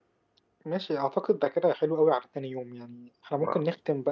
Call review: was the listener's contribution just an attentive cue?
Yes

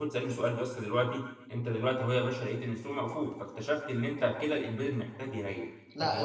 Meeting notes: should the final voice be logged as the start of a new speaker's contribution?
Yes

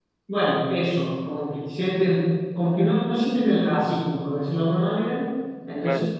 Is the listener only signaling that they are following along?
Yes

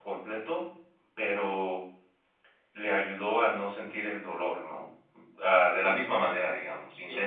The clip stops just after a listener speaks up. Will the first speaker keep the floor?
Yes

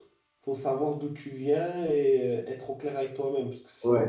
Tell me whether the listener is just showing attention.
No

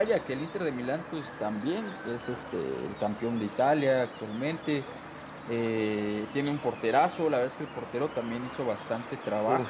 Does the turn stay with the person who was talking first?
No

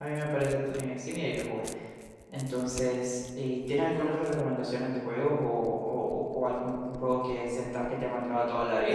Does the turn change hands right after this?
Yes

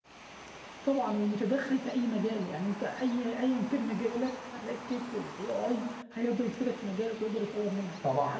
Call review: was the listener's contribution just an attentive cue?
Yes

